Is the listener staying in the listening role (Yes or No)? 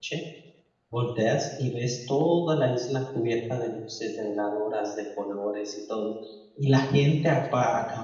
Yes